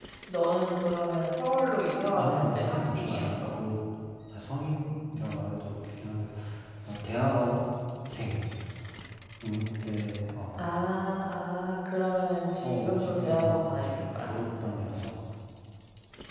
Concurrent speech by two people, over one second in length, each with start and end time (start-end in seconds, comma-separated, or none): 2.1-3.4, 12.6-14.1